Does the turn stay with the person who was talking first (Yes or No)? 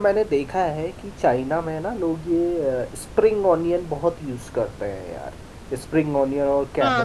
No